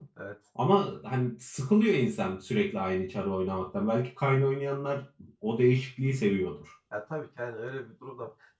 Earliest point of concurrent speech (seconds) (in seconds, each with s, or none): none